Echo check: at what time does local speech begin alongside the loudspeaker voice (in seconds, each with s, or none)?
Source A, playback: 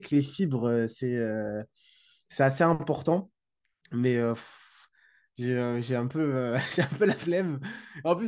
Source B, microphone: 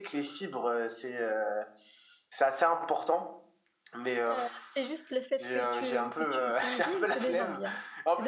4.3 s